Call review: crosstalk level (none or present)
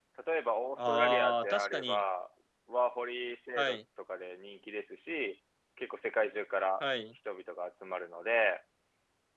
present